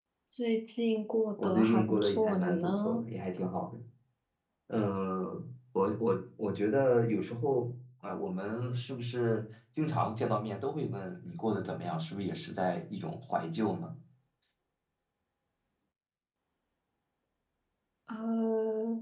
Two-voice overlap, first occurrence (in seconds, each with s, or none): 1.4 s